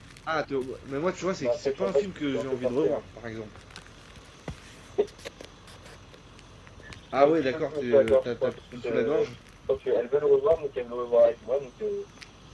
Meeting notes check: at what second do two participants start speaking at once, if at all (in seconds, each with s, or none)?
1.4 s